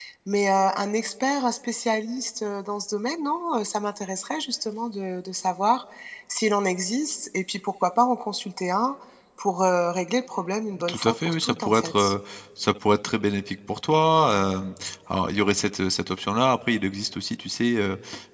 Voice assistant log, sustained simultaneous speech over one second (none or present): present